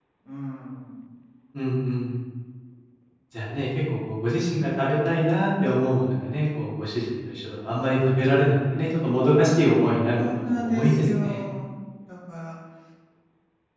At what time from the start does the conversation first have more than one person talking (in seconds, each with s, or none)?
10.1 s